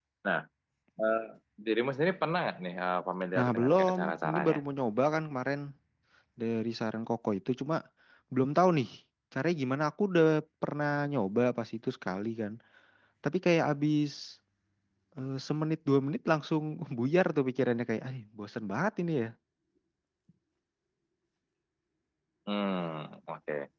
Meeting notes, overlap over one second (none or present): present